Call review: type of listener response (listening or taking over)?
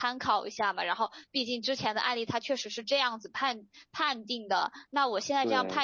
listening